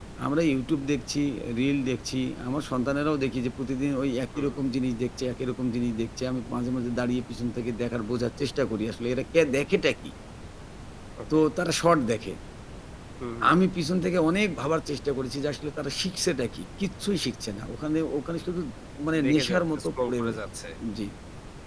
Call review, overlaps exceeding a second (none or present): present